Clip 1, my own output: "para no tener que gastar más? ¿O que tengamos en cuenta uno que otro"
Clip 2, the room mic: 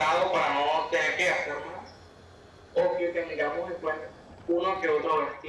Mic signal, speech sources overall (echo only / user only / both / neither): echo only